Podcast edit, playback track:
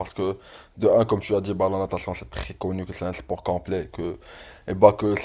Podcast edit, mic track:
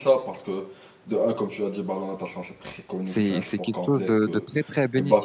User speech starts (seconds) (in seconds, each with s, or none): 3.0 s